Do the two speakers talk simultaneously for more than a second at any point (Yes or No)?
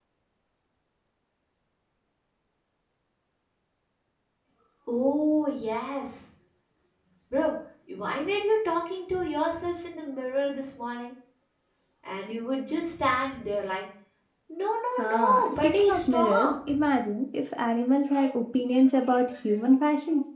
Yes